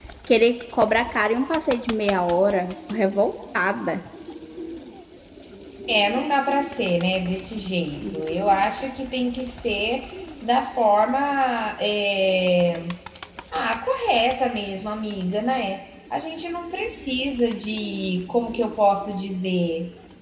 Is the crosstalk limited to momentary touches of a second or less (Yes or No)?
Yes